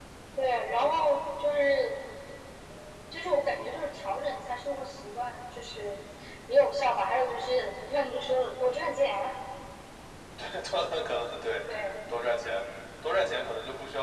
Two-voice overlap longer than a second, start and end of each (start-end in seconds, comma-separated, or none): none